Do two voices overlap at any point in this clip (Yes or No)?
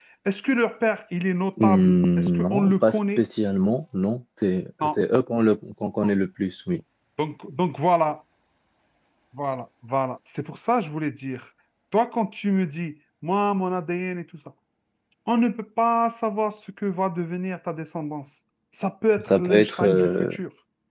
Yes